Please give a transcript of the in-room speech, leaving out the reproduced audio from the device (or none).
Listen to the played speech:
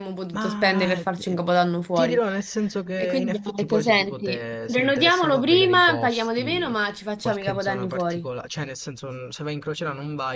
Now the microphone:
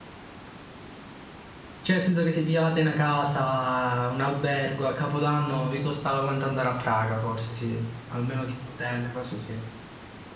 Cioè, nel senso che se pigliavate una casa, un albergo a Capodanno, vi costava quanto andare a Praga, forse, sì. Almeno di un hotel, cose sì.